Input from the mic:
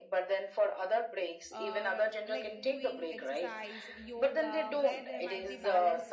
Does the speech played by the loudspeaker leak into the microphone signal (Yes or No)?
Yes